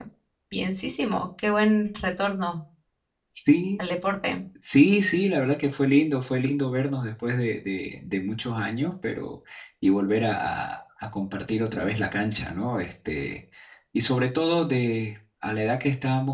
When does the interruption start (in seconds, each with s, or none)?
none